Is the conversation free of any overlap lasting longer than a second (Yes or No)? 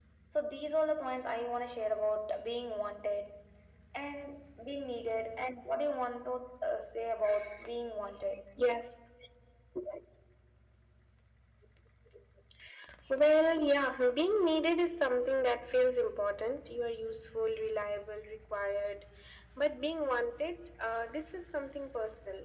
Yes